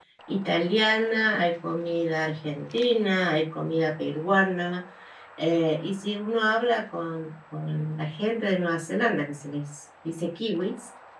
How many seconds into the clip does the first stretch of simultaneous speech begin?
none

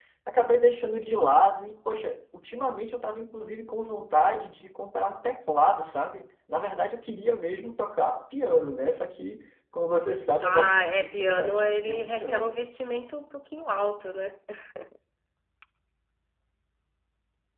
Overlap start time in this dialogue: 10.4 s

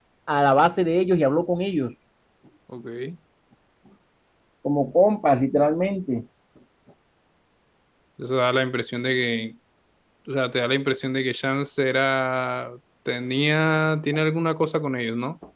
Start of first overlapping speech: none

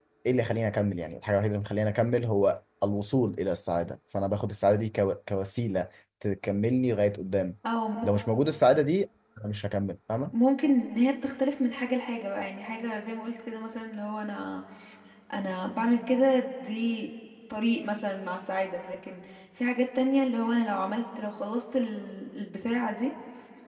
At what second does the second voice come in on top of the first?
none

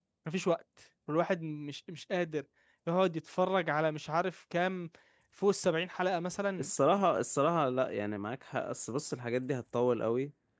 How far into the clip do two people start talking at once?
none

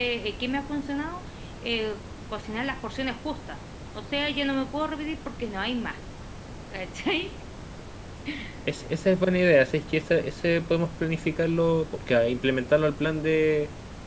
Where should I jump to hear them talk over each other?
none

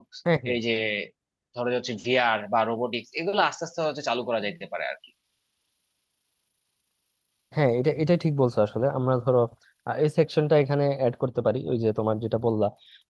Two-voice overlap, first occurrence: none

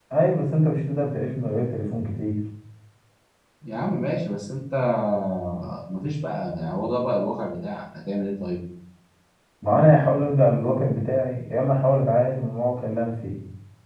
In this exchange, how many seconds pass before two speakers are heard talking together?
none

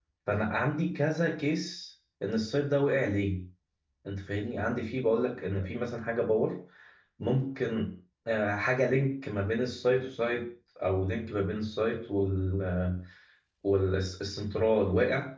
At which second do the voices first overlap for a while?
none

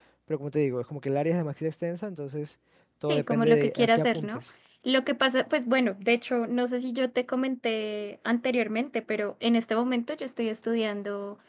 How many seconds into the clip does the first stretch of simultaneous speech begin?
3.0 s

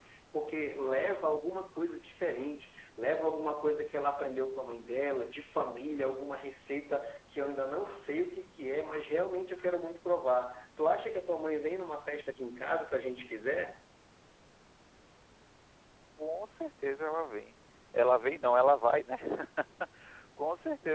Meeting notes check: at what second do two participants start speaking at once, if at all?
none

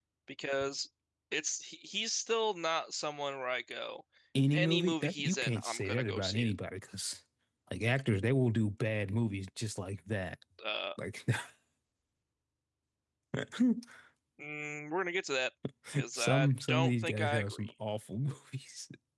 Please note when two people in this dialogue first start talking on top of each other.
4.5 s

